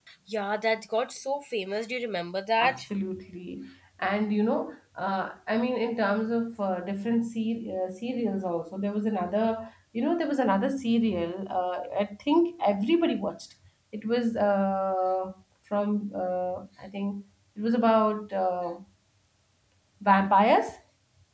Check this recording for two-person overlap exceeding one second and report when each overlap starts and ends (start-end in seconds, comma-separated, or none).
none